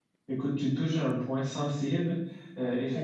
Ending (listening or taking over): listening